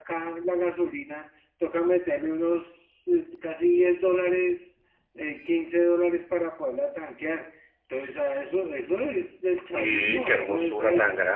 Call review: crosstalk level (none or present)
present